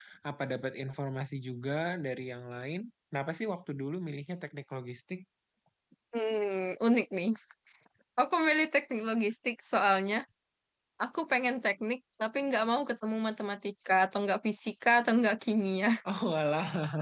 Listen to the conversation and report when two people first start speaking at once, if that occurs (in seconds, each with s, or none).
none